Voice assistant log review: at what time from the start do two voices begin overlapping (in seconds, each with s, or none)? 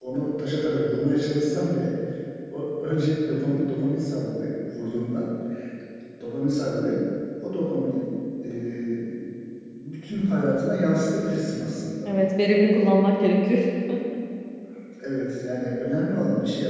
none